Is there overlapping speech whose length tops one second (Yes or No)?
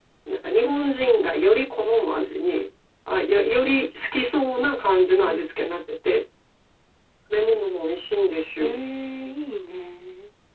No